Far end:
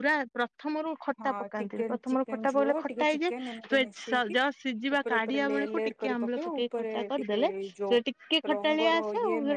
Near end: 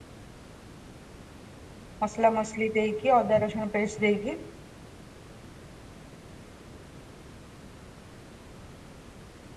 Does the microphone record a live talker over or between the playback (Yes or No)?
Yes